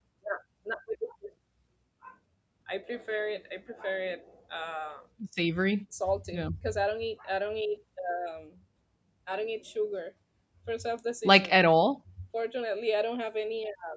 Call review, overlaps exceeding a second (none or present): none